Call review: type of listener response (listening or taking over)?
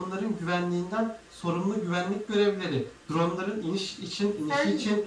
listening